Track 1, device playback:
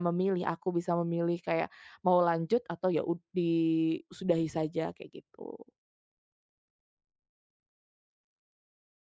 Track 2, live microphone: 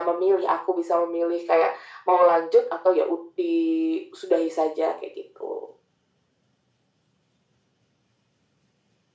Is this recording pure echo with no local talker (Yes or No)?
Yes